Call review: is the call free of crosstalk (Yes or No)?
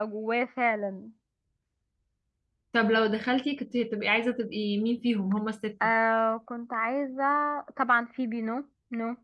Yes